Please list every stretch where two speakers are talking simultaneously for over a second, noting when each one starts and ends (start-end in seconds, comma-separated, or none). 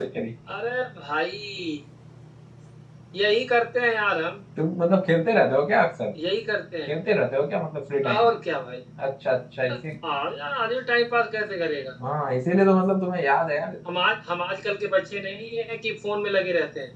none